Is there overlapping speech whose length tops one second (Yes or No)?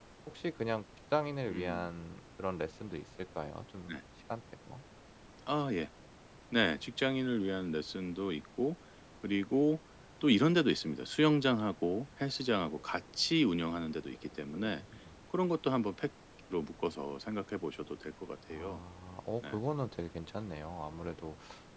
No